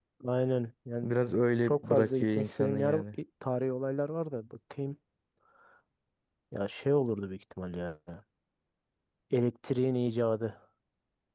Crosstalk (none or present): present